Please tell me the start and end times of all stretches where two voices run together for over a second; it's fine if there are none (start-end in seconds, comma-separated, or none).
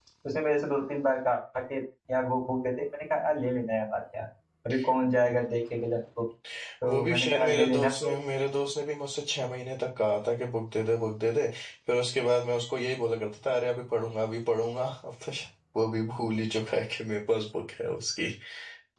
6.9-8.1